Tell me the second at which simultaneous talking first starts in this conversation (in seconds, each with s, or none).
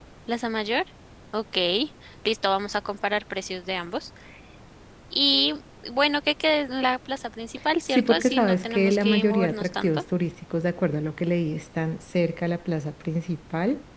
7.9 s